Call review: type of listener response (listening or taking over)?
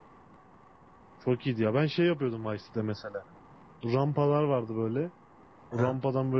listening